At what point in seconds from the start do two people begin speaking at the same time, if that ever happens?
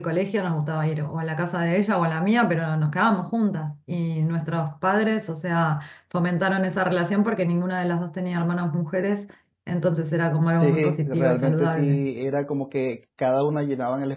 10.6 s

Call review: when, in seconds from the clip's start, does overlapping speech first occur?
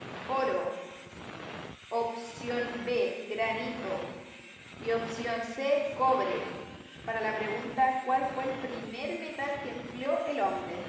none

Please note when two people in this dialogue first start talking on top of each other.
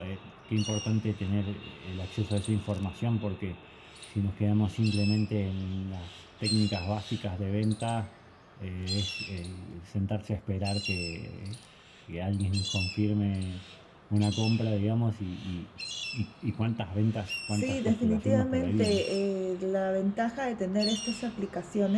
17.5 s

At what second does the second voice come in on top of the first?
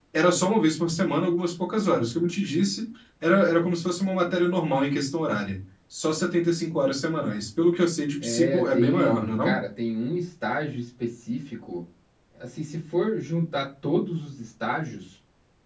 8.2 s

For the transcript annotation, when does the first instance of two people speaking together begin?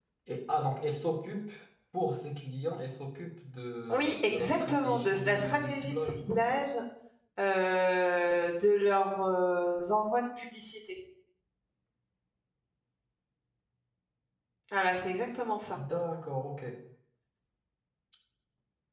3.9 s

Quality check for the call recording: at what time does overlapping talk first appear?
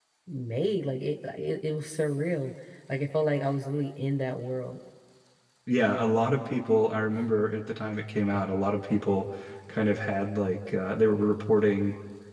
none

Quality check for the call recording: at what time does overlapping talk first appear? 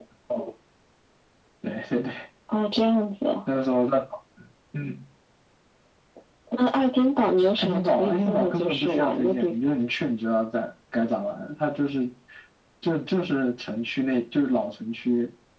7.6 s

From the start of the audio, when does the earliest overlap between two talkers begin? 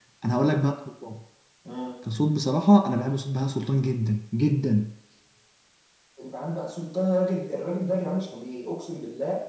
none

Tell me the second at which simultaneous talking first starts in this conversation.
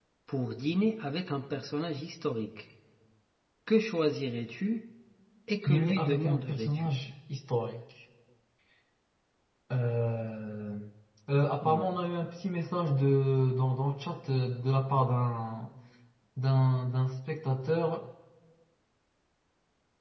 5.7 s

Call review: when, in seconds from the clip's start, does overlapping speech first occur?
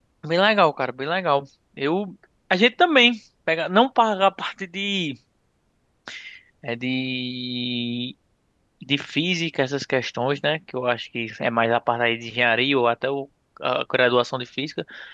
none

